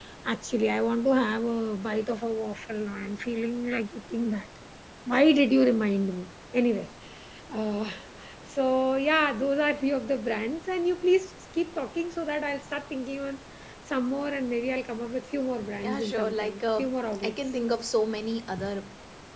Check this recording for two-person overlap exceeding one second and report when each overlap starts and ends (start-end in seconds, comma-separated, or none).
15.8-17.4